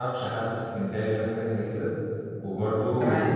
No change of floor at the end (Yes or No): Yes